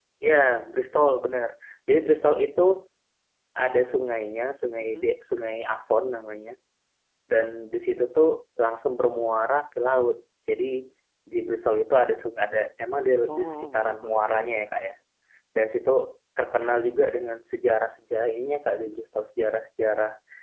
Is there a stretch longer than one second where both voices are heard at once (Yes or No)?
Yes